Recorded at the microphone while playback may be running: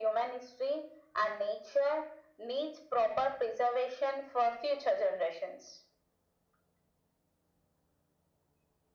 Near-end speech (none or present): none